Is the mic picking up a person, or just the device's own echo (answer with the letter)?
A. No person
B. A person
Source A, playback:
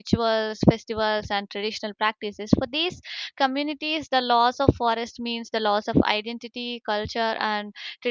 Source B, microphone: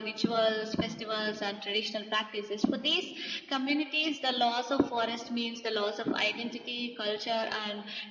A